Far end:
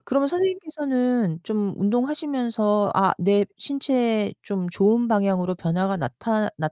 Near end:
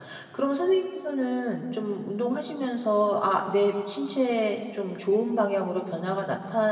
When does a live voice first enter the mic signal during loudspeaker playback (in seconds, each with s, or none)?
none